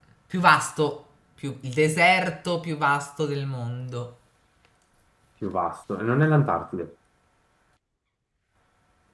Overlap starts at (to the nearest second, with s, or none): none